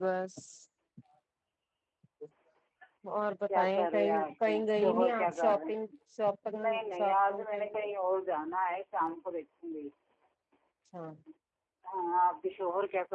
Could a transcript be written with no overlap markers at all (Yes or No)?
No